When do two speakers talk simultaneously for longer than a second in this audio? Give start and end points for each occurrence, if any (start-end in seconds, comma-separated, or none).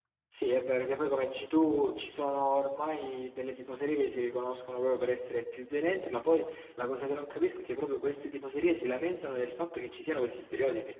none